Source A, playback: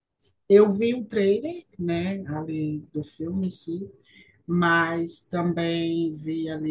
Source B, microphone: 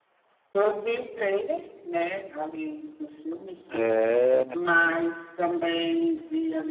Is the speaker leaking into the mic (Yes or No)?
Yes